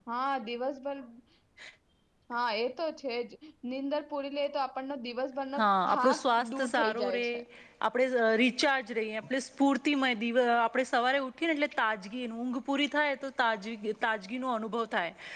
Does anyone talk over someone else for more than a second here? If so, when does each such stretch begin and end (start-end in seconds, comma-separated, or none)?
5.9-7.2